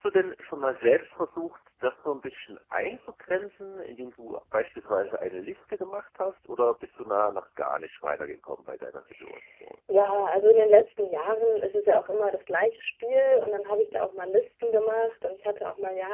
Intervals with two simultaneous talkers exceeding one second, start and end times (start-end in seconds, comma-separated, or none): none